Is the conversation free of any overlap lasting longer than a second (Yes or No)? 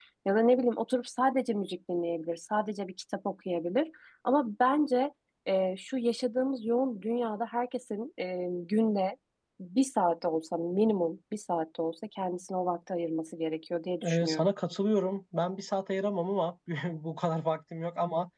Yes